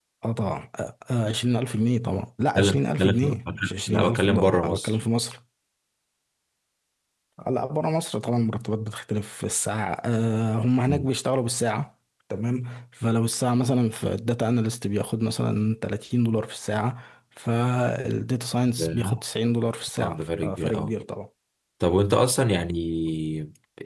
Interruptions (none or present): present